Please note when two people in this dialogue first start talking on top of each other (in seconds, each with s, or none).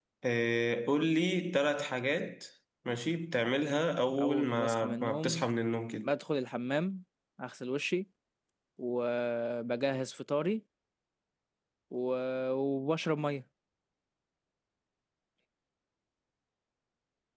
4.2 s